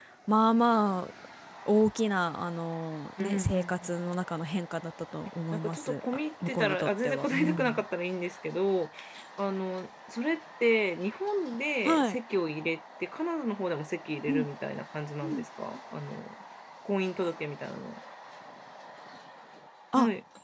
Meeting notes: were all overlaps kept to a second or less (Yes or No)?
No